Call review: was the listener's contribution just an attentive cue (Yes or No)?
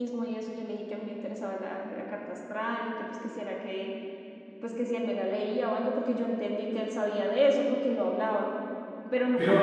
No